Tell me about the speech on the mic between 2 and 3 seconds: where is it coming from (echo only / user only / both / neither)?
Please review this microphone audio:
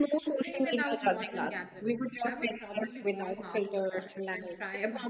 both